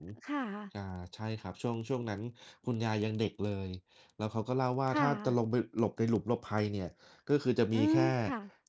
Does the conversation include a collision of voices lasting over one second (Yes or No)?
No